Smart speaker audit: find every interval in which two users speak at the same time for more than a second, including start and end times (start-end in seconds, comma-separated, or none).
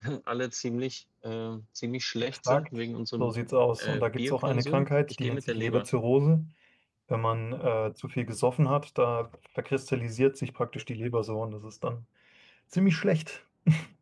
3.8-5.8